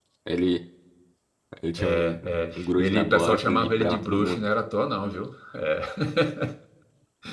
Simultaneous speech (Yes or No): Yes